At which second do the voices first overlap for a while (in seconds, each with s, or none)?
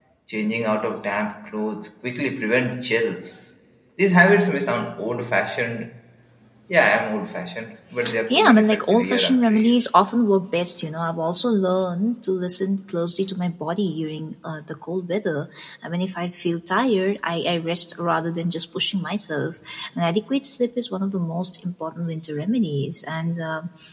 8.3 s